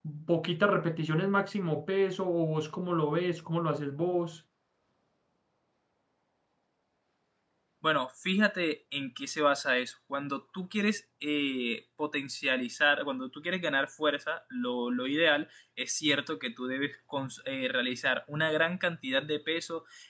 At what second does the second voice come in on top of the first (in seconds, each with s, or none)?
none